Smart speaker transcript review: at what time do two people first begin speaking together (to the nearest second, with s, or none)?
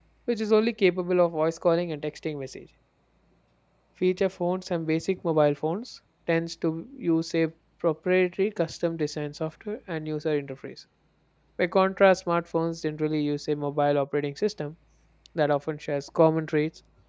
none